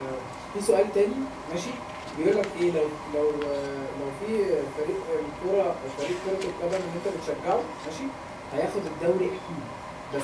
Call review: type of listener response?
listening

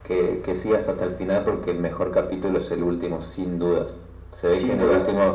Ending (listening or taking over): listening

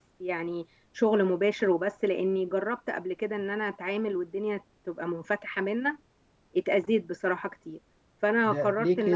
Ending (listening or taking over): taking over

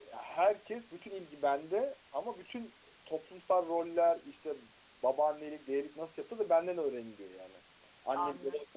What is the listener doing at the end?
taking over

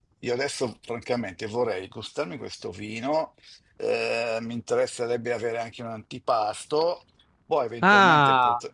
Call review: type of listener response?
taking over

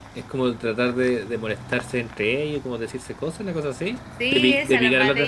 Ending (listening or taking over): taking over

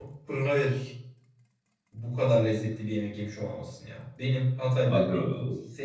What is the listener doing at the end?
listening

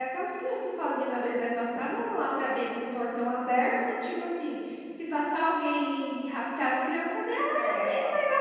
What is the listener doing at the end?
listening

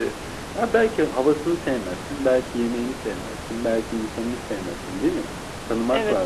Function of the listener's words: taking over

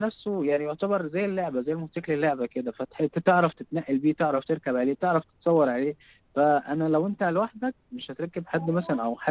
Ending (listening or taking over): listening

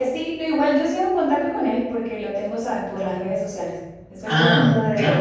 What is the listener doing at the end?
listening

